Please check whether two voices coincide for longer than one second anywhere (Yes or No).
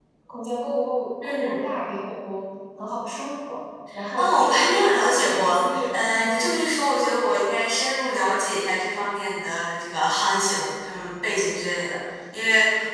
Yes